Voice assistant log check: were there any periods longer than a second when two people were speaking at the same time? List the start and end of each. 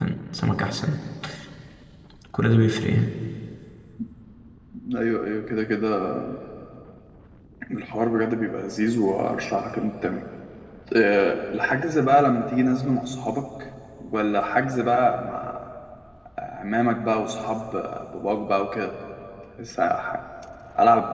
none

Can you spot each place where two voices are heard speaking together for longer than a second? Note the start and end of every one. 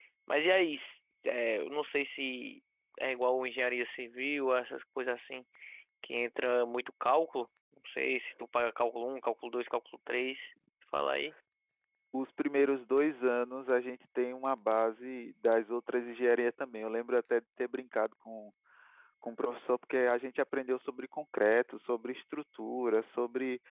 none

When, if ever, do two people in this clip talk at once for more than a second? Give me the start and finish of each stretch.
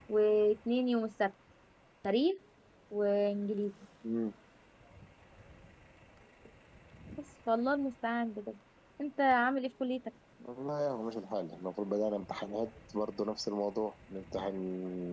none

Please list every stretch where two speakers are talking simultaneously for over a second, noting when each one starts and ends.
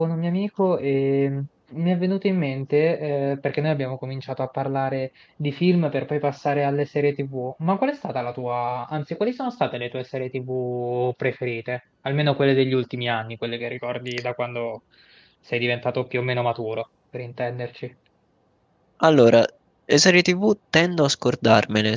none

